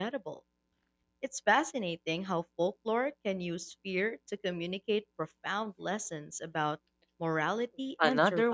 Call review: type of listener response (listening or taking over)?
taking over